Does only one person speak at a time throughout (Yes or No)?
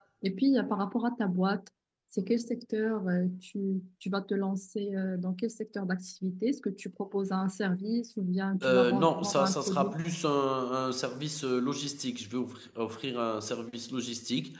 No